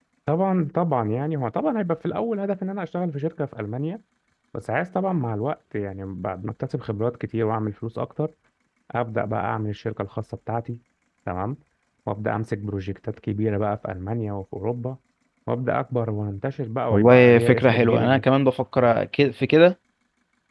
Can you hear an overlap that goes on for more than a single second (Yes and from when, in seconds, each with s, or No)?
Yes, from 16.9 s